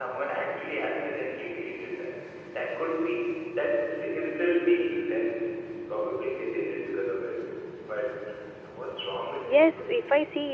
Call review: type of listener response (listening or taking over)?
taking over